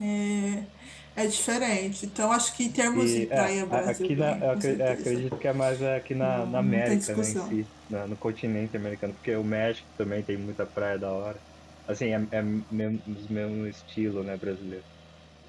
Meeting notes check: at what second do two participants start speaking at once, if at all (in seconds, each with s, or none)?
2.9 s